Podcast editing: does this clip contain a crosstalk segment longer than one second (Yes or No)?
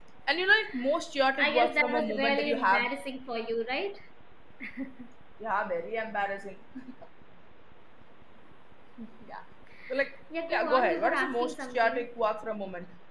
Yes